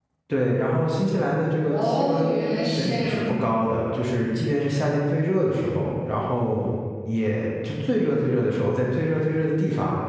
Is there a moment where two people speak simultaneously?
Yes, from 1.7 s

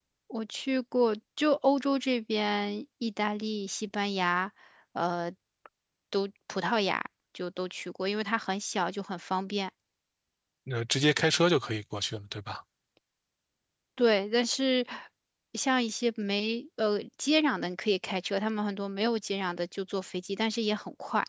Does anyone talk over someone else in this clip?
No

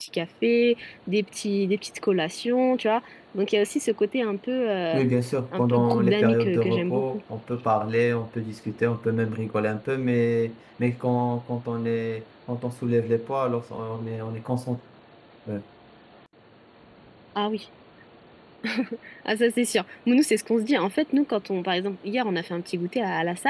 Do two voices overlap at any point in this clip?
Yes, from 5.6 s

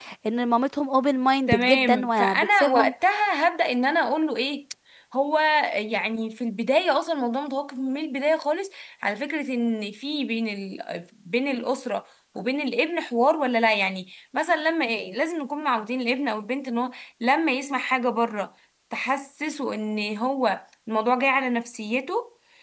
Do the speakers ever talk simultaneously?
Yes, from 1.5 s

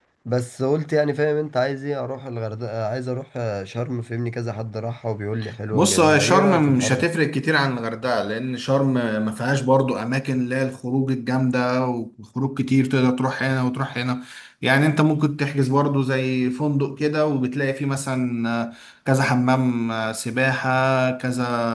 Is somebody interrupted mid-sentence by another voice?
Yes, from 5.7 s

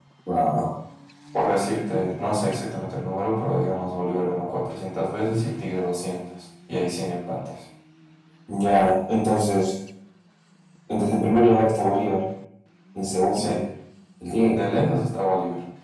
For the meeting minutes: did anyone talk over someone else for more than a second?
No

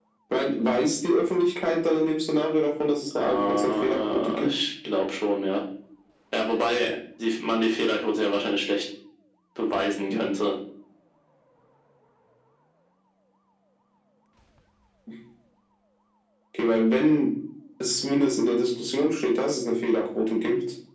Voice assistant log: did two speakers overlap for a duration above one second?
Yes, from 3.2 s

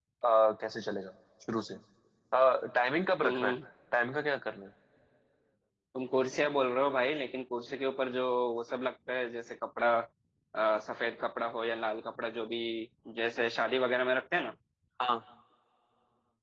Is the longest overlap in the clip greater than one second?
No

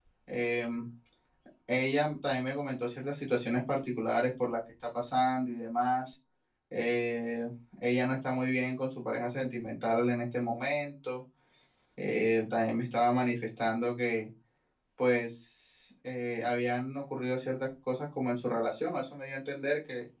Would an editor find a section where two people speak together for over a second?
No

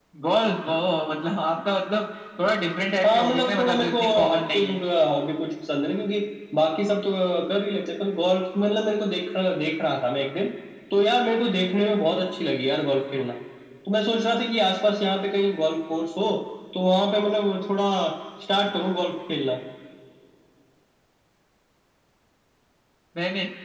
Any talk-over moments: Yes, from 3.0 s

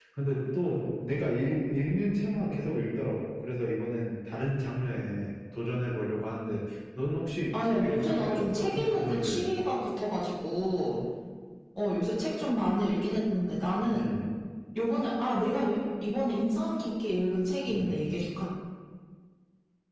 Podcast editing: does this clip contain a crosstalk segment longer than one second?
Yes, from 7.5 s

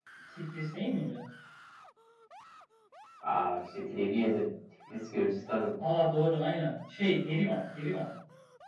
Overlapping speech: No

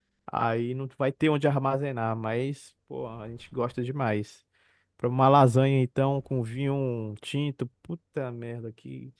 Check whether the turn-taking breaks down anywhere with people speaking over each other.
No

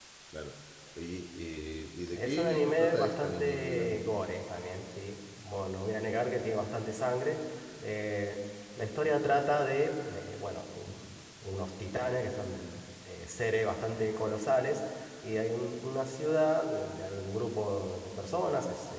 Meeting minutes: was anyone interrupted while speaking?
Yes, from 2.1 s

